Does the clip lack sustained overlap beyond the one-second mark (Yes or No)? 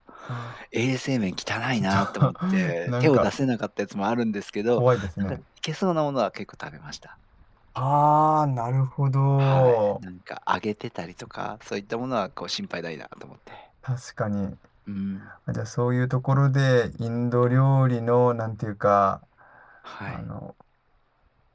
No